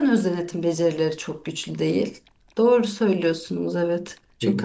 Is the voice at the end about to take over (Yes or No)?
Yes